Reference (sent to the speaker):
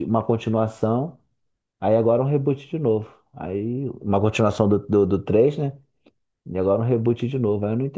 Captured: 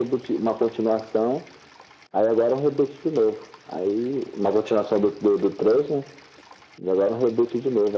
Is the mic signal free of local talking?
Yes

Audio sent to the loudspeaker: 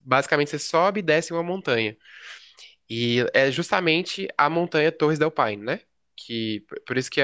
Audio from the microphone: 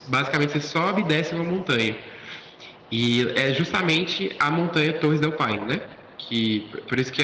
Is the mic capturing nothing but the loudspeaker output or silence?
Yes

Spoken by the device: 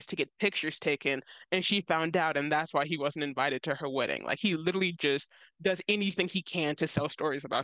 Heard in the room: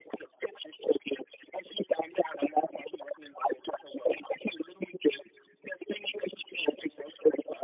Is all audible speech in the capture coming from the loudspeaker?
Yes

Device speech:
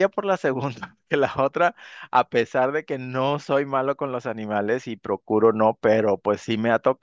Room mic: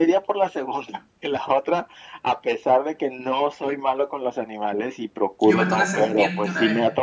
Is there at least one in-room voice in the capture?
Yes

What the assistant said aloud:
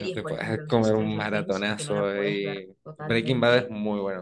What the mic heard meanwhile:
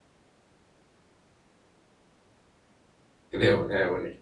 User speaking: Yes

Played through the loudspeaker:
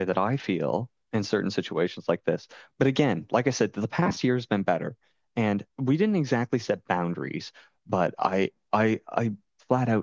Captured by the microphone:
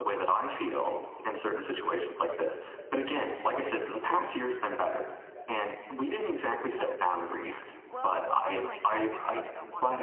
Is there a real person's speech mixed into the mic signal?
Yes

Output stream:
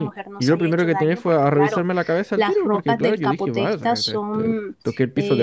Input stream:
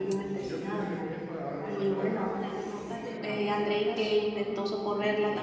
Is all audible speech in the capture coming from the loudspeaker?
No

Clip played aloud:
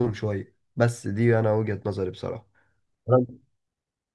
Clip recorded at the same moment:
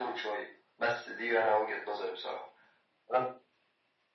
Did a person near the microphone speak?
No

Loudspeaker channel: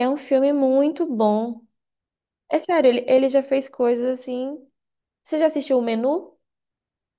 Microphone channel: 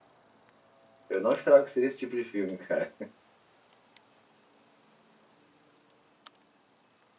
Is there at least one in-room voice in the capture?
Yes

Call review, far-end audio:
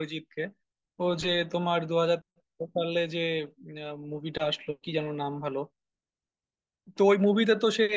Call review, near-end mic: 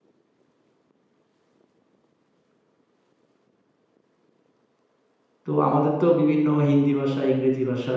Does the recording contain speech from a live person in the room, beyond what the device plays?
Yes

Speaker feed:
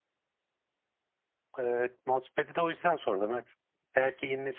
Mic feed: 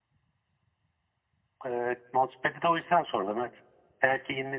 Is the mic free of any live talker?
Yes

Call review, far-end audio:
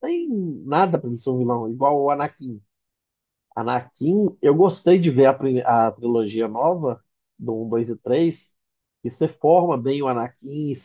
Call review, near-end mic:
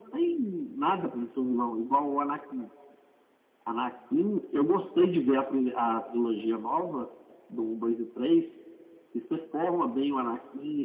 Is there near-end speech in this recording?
No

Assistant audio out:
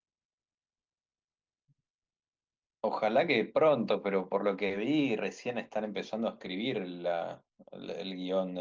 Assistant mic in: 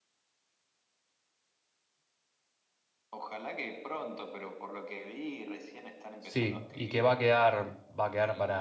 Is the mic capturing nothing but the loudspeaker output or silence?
No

